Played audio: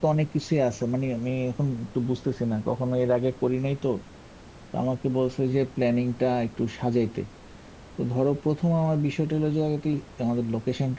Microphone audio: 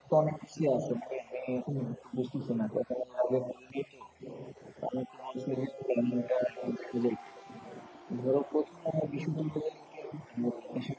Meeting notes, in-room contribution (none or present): none